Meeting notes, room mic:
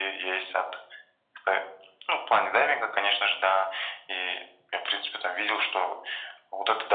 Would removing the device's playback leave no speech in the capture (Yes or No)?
Yes